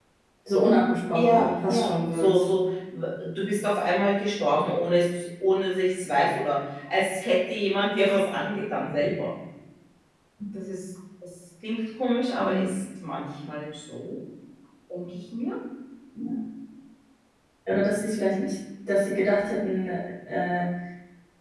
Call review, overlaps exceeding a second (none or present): present